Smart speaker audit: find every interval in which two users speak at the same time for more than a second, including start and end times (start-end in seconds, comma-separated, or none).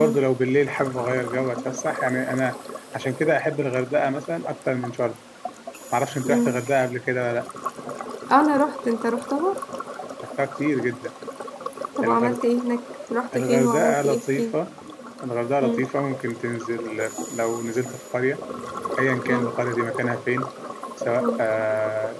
13.3-14.6